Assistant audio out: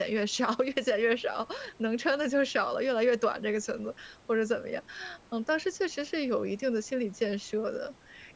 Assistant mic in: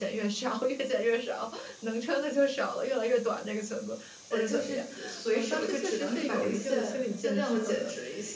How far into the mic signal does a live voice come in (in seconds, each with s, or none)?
4.3 s